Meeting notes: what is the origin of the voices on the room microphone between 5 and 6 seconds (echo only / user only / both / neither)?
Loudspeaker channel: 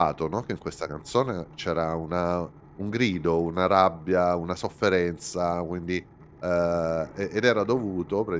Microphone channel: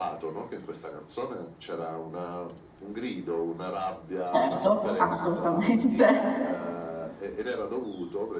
both